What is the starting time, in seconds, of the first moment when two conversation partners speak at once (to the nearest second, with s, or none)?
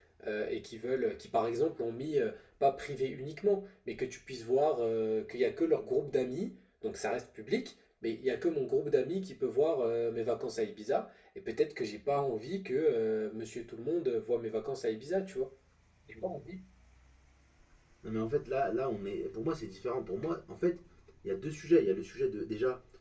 none